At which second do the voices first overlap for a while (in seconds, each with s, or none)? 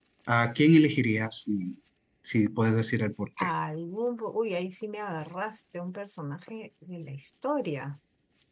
none